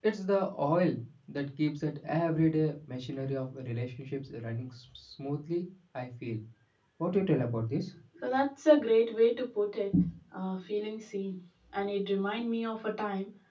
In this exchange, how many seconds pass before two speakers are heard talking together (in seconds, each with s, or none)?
none